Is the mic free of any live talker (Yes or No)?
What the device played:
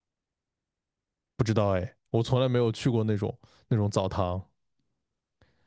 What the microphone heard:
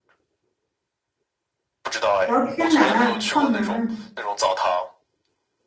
No